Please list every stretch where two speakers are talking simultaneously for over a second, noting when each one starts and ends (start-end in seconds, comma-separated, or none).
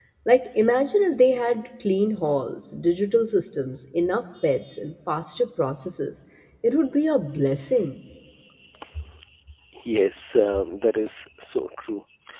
none